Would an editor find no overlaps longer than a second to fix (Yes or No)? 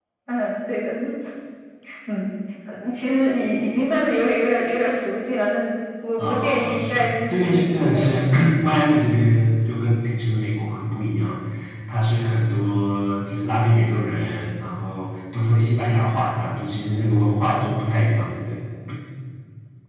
No